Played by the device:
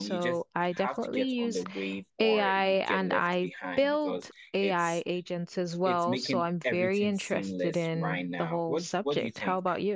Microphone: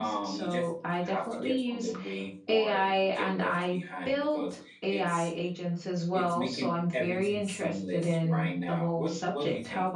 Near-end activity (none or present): none